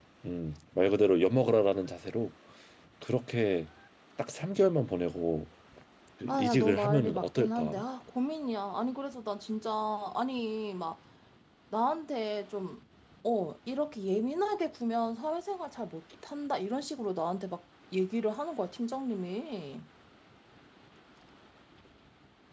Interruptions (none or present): present